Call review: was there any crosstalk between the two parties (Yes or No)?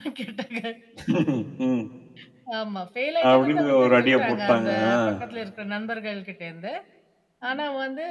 Yes